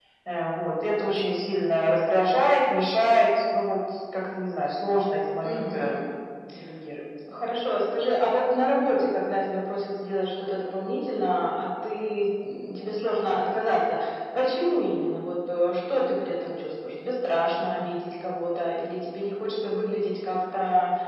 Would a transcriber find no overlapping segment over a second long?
Yes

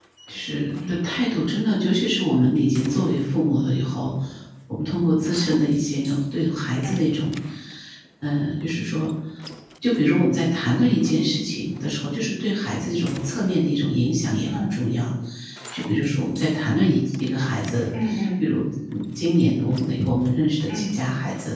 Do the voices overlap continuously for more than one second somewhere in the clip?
No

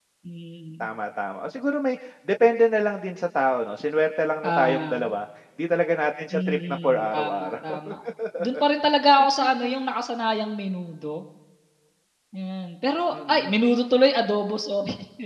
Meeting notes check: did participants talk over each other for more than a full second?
Yes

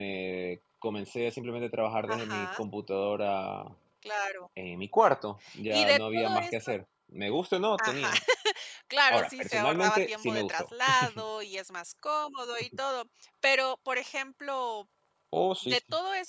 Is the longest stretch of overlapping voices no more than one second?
No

